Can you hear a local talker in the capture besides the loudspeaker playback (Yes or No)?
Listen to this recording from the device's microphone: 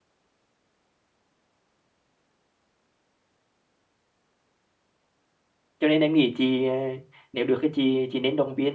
Yes